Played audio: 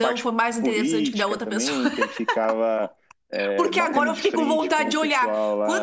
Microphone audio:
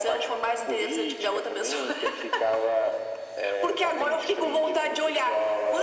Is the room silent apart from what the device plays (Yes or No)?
Yes